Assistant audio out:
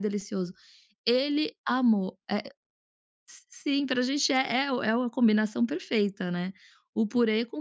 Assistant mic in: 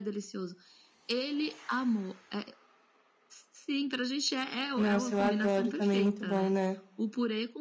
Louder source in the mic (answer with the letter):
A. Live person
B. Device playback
A